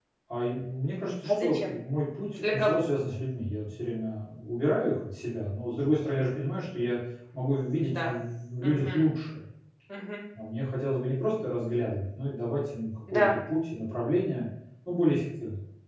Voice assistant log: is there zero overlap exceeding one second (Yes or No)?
Yes